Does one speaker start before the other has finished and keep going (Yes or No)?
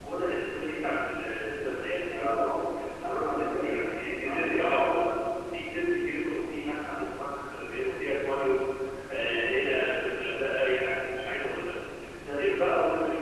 Yes